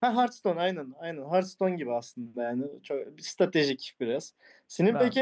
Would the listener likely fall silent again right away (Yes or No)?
Yes